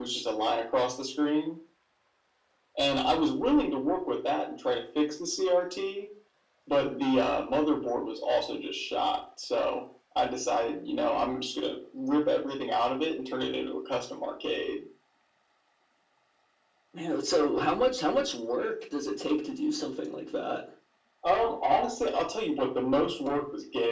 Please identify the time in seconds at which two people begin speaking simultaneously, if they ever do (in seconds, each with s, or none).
none